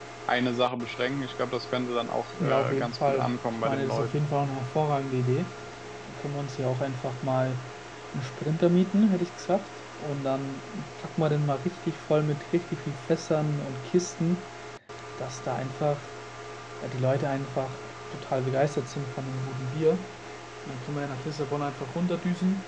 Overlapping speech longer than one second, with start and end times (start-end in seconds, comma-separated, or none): 2.4-4.1